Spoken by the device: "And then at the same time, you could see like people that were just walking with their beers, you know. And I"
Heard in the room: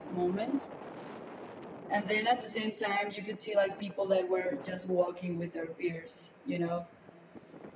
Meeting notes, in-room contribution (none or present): none